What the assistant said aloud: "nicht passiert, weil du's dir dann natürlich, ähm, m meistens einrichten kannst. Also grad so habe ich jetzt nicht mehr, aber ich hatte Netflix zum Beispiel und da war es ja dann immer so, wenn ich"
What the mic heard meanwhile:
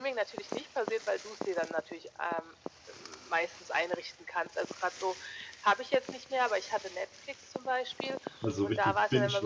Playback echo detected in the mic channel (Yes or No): Yes